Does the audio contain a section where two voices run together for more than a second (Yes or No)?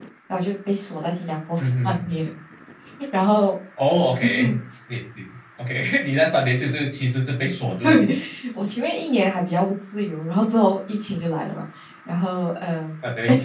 No